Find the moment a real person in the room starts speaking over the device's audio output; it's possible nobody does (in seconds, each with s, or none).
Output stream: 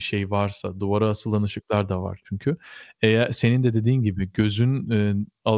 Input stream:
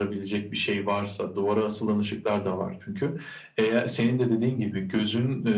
none